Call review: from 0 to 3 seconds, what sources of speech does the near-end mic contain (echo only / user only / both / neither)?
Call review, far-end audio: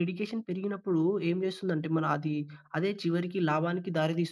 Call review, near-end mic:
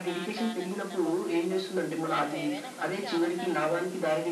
both